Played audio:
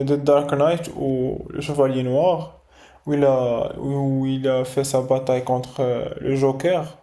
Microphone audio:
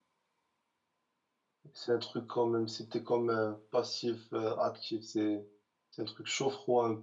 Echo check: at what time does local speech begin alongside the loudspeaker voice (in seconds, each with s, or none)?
1.7 s